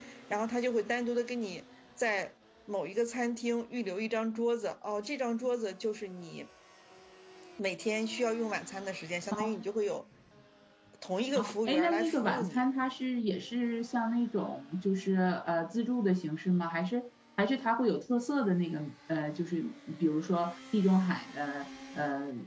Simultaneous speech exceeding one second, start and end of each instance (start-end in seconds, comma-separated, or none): 11.3-12.6